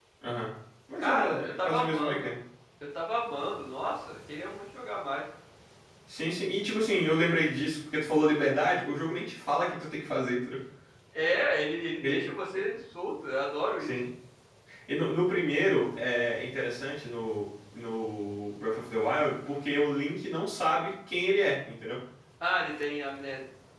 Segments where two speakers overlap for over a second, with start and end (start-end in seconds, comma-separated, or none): 1.0-2.3